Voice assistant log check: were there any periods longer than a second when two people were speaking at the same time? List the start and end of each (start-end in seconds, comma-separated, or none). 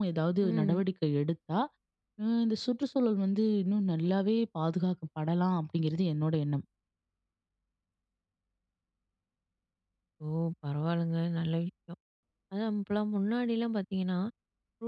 none